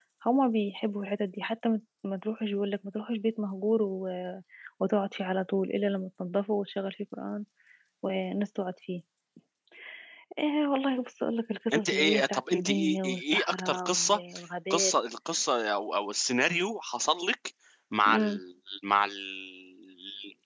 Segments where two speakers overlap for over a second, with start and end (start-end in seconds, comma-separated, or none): 11.7-14.2